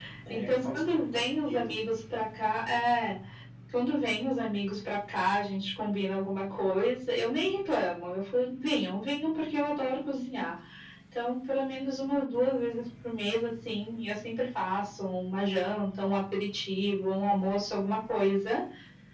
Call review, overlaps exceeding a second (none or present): present